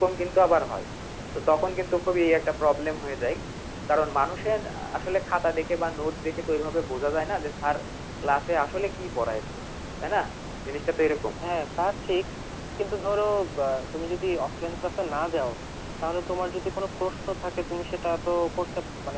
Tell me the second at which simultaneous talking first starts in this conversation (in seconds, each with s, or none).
none